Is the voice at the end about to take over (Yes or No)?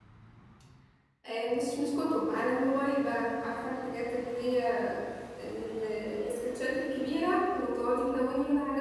No